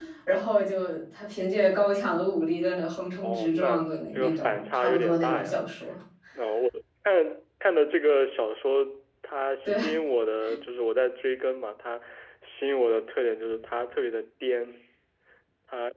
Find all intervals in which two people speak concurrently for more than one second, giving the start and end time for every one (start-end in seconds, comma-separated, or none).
3.2-5.6